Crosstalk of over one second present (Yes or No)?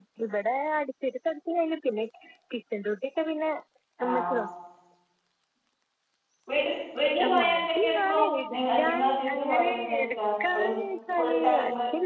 Yes